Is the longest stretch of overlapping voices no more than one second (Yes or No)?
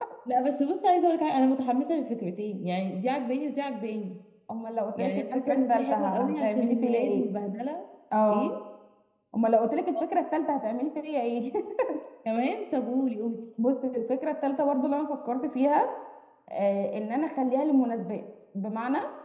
No